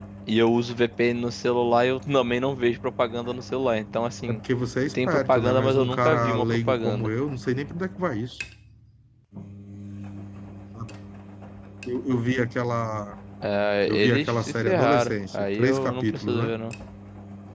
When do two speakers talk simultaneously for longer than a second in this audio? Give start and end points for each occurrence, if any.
4.9-7.1, 13.9-16.5

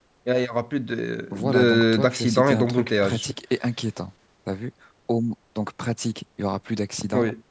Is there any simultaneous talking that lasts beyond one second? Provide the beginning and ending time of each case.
1.3-3.2

